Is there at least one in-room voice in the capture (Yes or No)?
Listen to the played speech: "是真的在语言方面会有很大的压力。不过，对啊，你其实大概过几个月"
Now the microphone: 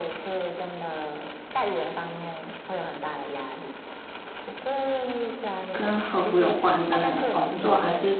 Yes